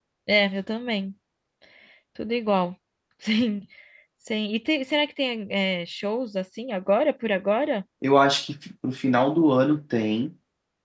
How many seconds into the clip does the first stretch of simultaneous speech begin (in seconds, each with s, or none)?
none